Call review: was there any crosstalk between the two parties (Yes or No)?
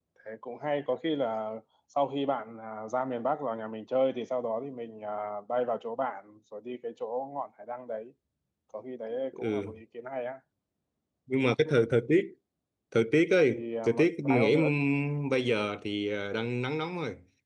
Yes